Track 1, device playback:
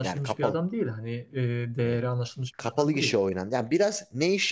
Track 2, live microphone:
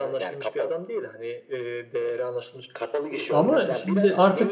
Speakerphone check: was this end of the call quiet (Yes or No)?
No